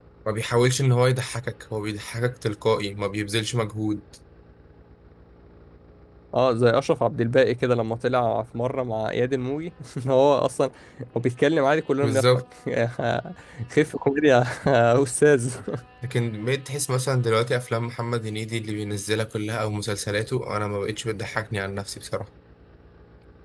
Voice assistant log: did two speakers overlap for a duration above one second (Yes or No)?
No